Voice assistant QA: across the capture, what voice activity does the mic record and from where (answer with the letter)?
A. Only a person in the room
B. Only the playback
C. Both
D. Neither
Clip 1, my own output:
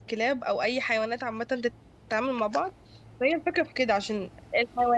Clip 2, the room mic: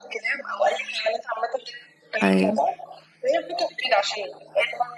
C